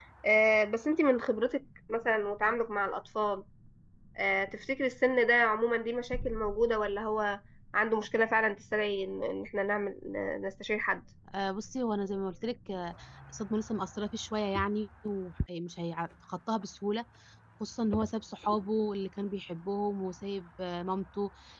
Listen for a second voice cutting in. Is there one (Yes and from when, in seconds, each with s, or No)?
No